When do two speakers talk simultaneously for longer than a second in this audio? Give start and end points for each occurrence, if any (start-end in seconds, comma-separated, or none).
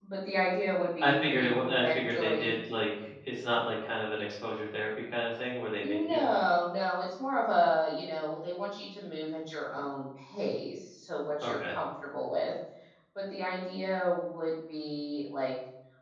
1.0-2.5